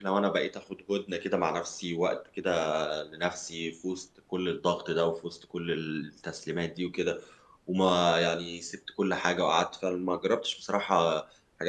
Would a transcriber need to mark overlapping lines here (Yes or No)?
No